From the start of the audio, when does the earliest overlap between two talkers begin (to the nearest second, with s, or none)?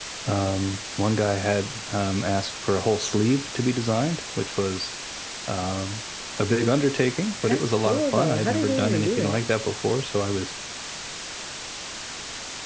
7 s